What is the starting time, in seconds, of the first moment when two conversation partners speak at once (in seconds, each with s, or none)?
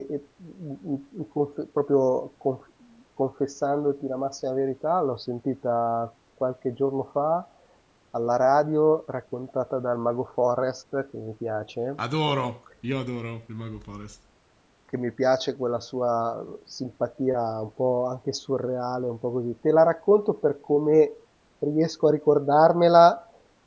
none